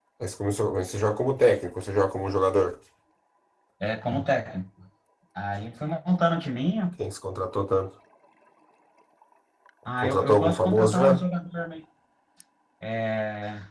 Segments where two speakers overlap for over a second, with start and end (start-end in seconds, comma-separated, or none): 10.0-11.2